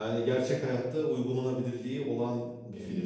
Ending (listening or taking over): listening